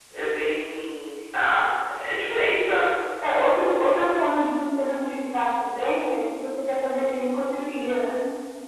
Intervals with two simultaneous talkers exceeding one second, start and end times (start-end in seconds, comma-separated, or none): none